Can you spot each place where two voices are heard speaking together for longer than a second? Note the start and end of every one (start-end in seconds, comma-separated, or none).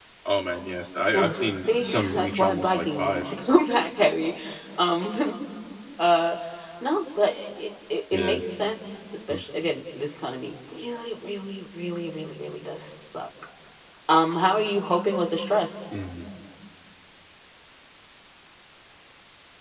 1.1-3.3